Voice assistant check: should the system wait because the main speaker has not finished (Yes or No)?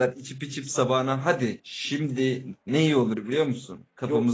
No